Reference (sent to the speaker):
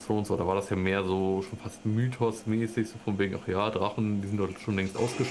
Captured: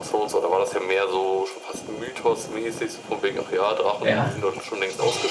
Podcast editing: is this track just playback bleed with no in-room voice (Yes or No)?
No